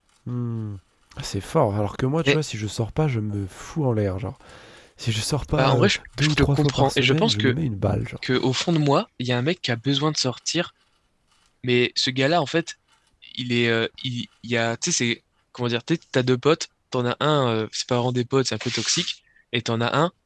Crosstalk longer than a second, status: present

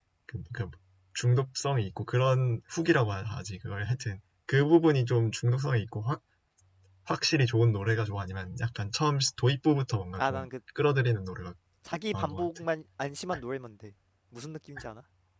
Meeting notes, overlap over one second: none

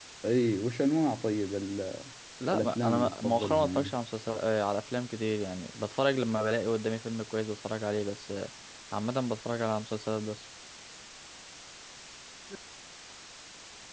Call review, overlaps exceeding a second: present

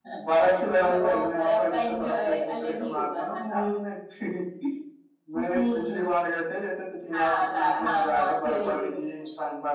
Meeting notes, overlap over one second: present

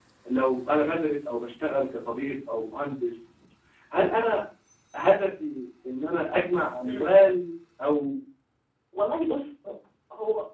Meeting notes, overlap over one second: none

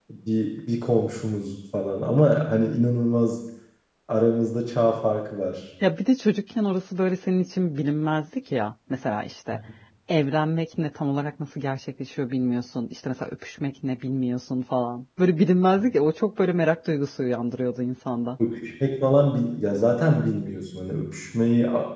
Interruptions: none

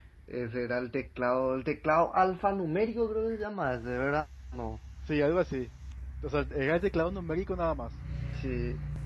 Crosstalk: none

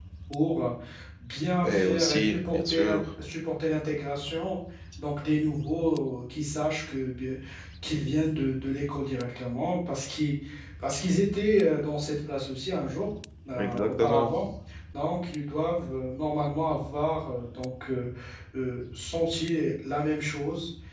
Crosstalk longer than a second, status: present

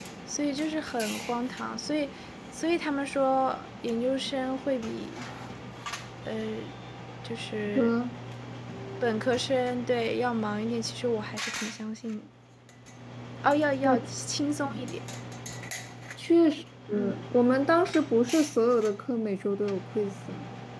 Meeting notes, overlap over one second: none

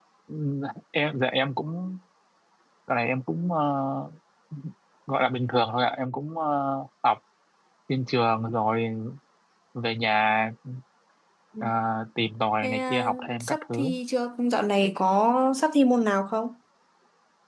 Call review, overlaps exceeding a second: present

